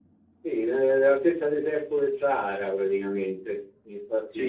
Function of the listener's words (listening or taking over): taking over